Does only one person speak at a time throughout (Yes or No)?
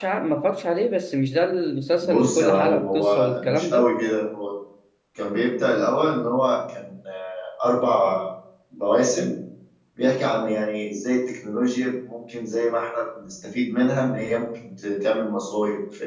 No